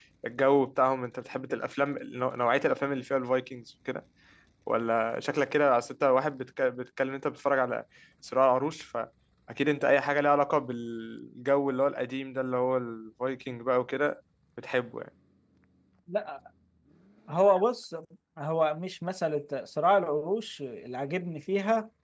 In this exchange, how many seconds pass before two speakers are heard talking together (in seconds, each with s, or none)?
none